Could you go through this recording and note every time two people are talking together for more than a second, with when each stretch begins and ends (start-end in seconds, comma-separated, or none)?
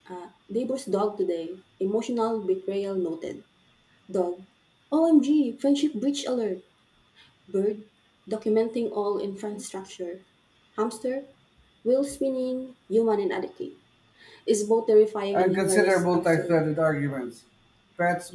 15.3-16.6